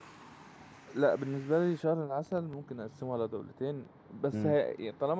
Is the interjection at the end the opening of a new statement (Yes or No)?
No